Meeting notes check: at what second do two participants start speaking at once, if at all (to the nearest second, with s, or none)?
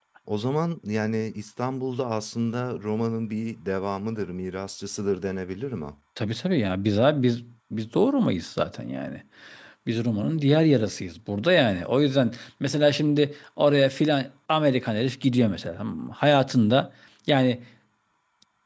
none